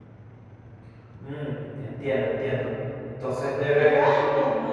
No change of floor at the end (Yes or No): No